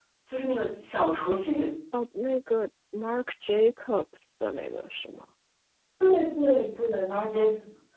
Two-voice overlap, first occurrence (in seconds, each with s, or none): none